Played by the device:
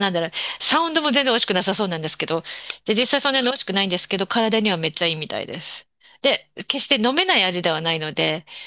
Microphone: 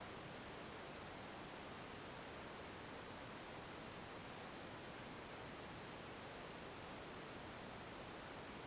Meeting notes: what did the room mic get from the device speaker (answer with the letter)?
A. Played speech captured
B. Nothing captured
B